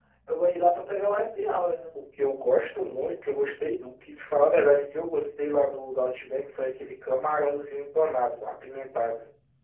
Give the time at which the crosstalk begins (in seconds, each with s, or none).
none